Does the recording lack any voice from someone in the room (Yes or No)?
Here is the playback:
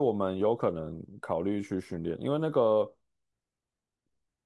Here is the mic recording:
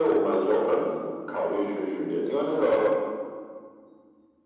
Yes